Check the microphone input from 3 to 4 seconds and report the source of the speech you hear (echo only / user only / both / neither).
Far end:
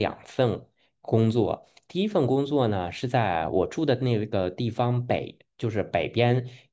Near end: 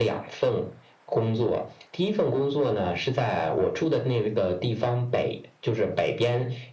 echo only